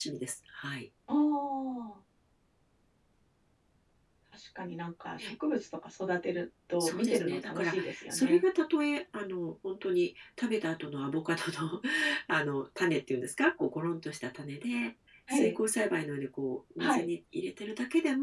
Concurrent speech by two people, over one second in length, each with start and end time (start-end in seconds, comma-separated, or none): 6.8-8.4